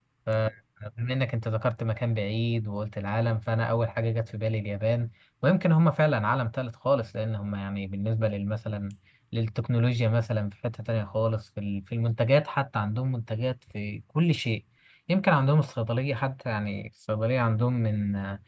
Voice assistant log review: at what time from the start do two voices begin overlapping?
none

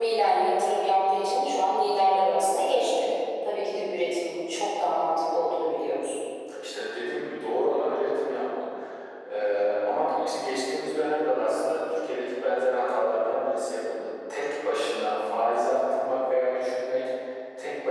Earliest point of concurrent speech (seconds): none

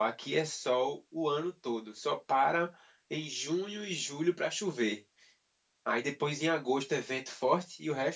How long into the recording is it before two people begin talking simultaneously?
none

